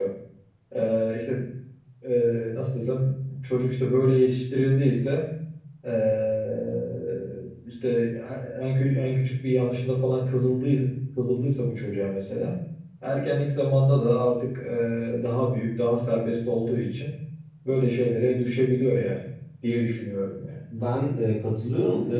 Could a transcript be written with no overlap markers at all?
Yes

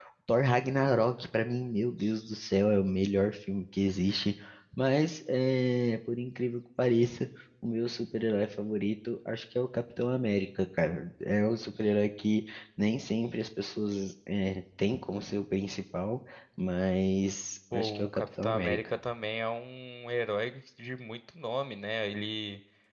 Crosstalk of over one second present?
Yes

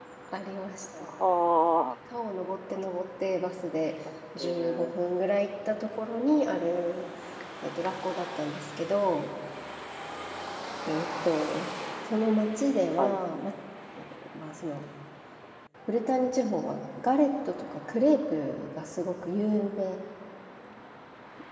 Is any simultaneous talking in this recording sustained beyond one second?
No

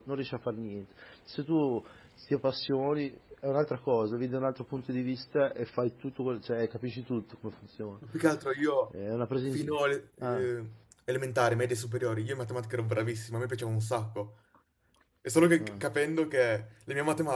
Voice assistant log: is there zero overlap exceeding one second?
Yes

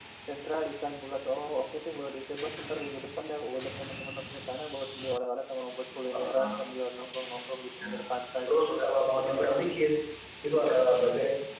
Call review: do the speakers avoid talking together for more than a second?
No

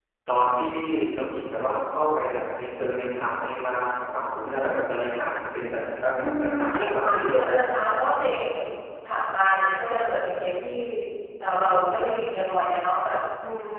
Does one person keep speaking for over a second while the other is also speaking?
Yes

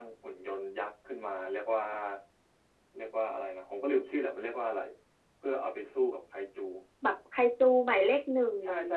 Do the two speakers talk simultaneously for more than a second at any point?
No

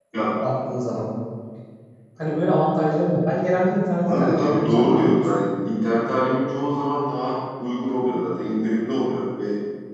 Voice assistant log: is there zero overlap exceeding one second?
No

